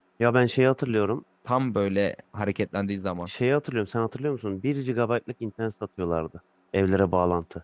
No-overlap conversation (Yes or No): Yes